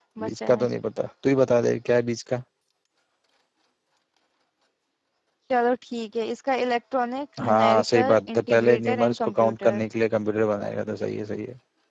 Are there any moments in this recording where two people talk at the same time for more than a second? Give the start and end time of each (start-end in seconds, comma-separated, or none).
7.4-9.8